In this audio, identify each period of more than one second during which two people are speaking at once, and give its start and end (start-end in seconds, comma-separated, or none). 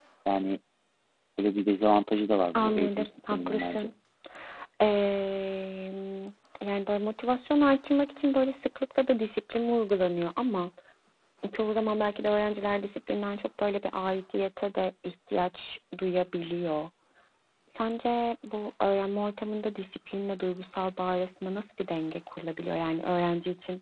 2.5-3.9